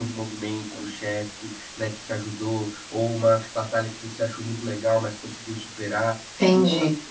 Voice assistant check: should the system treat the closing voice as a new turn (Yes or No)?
Yes